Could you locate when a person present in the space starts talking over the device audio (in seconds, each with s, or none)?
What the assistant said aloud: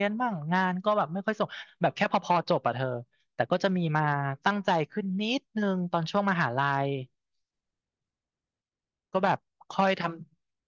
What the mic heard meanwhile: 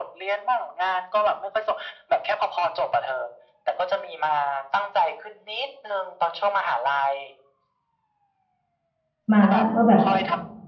9.3 s